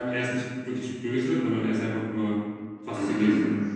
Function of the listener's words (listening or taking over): taking over